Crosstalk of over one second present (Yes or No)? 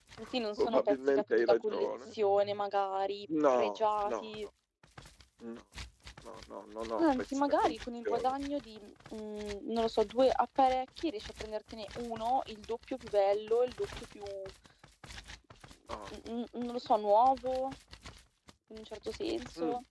Yes